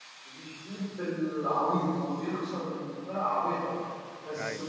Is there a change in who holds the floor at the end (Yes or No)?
No